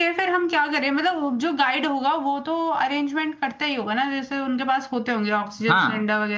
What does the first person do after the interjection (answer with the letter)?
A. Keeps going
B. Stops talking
B